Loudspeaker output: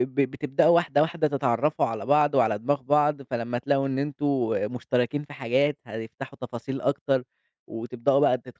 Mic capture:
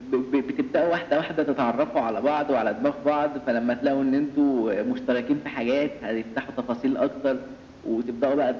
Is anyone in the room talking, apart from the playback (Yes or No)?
No